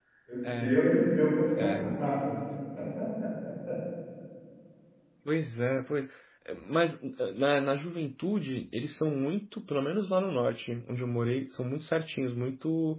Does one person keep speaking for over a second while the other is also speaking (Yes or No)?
No